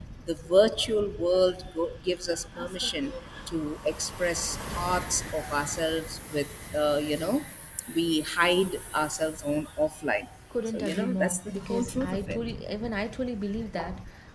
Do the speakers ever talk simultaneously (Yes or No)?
Yes